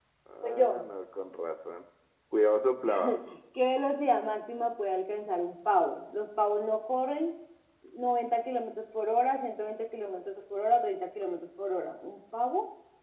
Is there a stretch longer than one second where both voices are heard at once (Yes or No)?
No